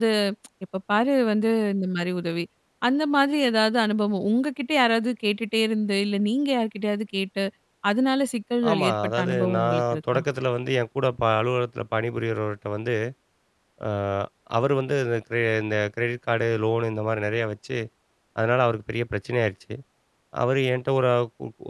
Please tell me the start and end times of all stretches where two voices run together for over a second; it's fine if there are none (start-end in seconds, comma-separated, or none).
8.7-10.2